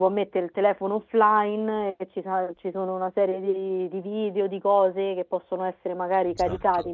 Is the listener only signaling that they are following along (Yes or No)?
Yes